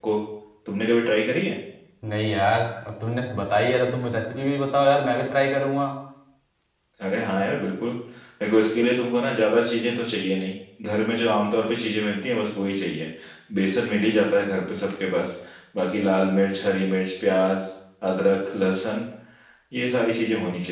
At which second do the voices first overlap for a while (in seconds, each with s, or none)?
none